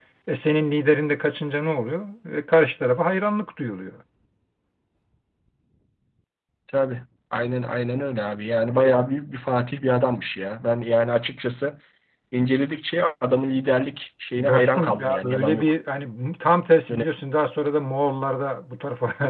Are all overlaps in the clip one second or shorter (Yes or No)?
No